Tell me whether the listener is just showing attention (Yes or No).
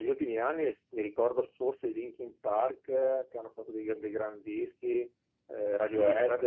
No